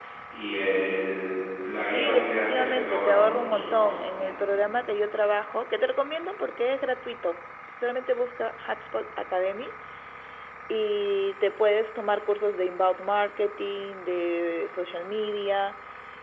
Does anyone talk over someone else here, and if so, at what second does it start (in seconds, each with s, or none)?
1.8 s